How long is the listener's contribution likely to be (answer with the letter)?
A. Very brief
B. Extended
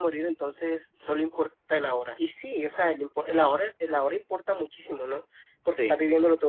A